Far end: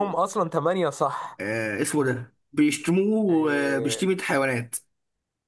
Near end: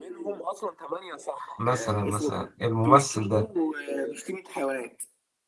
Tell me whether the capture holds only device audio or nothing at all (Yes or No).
No